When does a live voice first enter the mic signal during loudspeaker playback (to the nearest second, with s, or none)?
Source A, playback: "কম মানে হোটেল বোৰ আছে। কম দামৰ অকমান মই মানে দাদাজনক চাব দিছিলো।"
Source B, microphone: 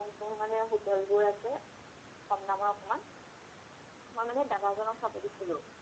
none